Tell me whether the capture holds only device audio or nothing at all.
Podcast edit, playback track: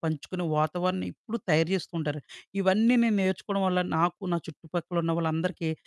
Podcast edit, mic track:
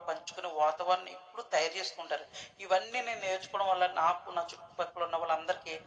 Yes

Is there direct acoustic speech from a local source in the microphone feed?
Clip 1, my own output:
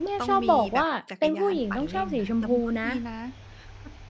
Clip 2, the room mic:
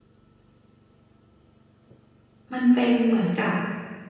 Yes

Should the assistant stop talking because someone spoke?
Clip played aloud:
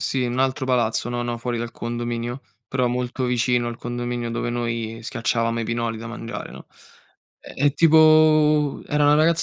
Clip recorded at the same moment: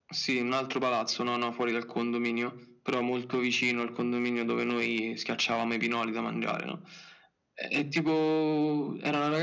No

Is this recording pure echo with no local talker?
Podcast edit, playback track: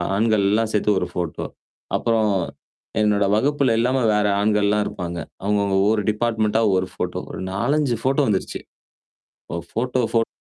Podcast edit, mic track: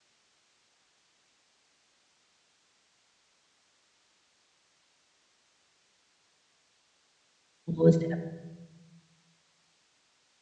No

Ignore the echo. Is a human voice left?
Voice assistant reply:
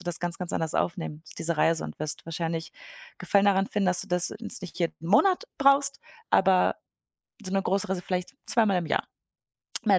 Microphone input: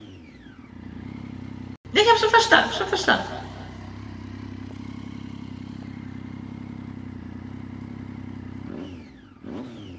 Yes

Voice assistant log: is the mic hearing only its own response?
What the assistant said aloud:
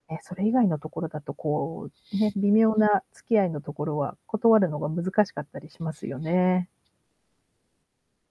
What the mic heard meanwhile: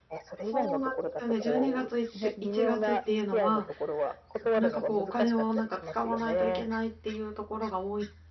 No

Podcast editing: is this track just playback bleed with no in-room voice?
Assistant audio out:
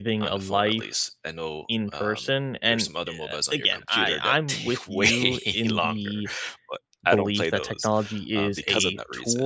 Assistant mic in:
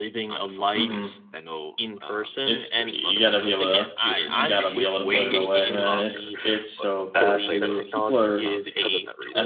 No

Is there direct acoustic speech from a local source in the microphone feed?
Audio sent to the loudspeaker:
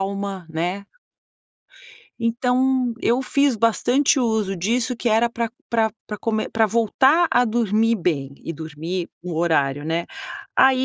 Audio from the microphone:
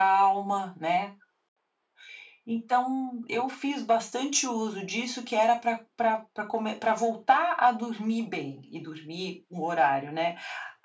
No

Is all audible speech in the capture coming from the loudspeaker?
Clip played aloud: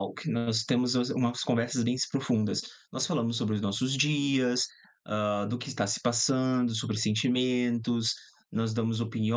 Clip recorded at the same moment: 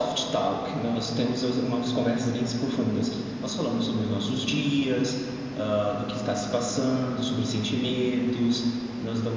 Yes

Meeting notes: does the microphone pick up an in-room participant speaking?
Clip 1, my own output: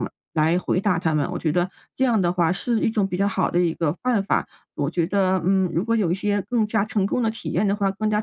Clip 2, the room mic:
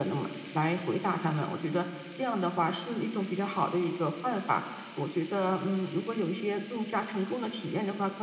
No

